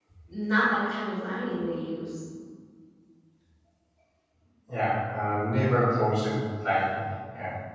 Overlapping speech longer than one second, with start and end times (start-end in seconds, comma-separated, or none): none